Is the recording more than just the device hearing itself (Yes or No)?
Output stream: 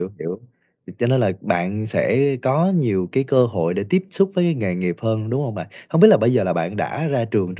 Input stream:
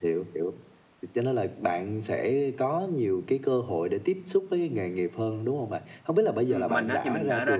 Yes